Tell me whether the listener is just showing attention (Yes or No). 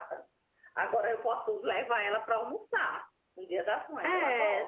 No